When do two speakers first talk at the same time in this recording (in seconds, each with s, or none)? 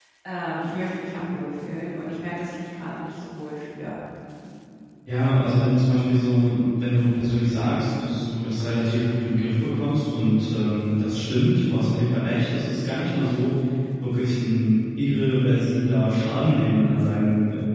none